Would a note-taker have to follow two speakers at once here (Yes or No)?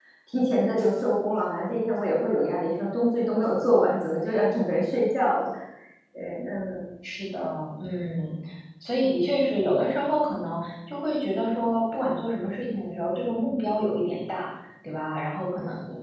No